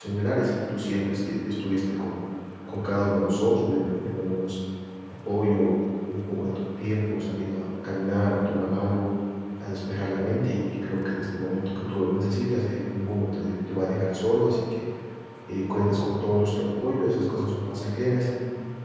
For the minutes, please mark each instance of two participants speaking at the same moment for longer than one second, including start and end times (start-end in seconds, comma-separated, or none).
none